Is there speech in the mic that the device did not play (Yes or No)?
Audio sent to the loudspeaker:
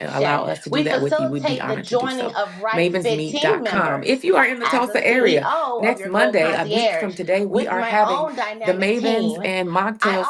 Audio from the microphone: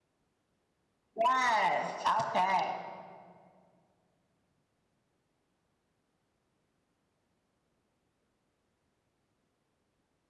Yes